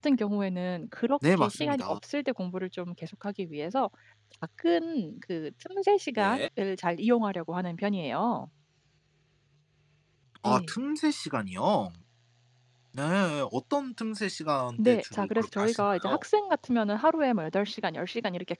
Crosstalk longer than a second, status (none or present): present